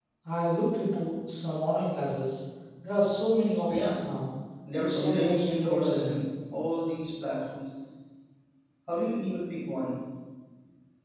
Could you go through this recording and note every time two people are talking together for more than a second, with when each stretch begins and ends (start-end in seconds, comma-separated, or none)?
4.8-6.2